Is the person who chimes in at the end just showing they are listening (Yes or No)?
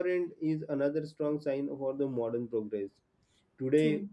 Yes